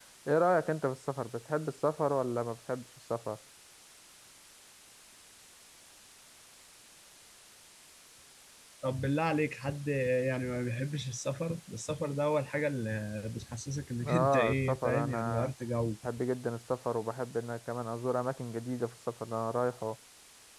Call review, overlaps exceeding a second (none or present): present